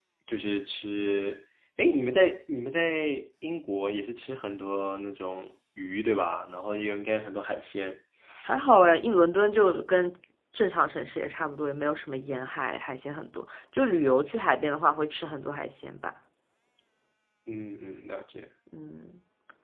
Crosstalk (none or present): none